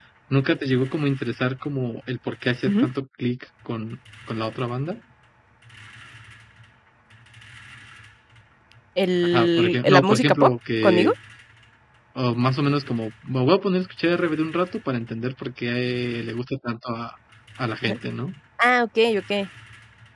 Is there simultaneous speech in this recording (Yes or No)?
Yes